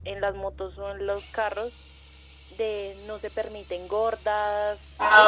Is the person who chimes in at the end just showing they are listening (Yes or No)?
No